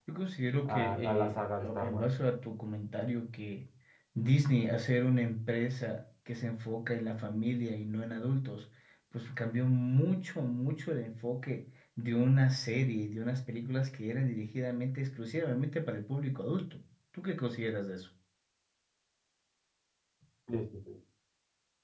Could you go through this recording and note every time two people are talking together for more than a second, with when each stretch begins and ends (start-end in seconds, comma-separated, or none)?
0.7-2.0